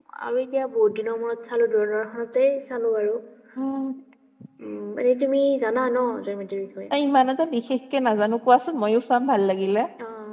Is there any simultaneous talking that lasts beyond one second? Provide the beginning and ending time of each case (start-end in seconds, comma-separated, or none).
none